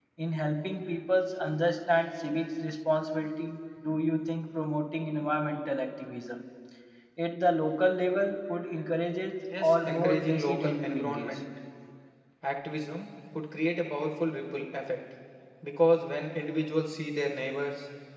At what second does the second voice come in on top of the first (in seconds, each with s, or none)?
9.5 s